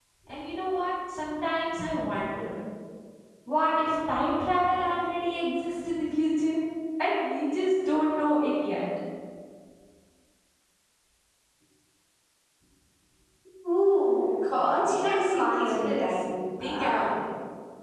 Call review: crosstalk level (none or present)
present